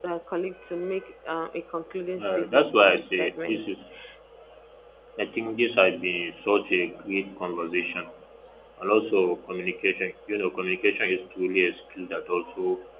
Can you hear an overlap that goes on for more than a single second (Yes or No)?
Yes